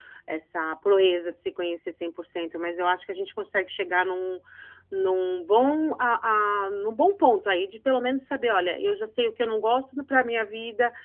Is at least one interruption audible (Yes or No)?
No